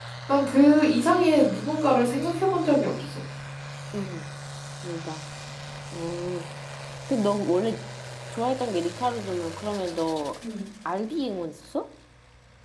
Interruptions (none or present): none